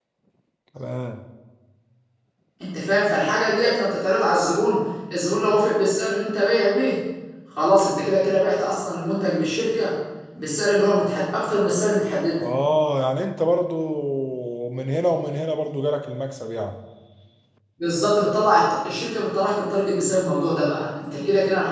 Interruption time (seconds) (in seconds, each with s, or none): none